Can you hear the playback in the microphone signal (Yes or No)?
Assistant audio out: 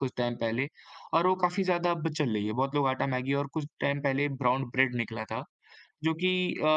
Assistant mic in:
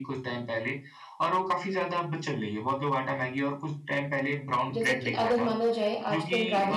Yes